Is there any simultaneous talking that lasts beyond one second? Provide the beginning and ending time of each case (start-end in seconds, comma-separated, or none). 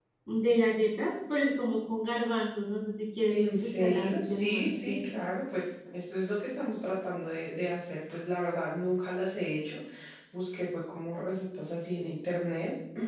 3.3-5.1